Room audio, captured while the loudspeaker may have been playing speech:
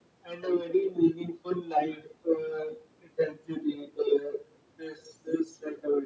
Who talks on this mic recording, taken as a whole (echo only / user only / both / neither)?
echo only